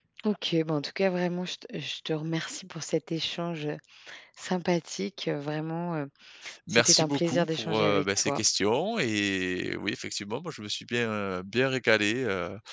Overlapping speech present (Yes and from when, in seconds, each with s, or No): Yes, from 6.7 s